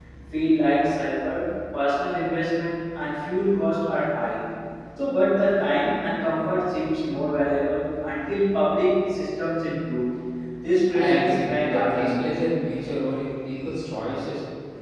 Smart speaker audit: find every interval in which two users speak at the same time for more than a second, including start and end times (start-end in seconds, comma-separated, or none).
10.9-12.3